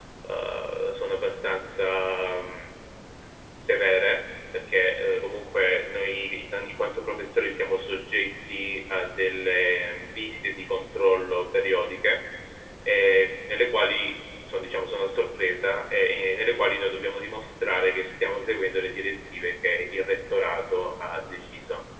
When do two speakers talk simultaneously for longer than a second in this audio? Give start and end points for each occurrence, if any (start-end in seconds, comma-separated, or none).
none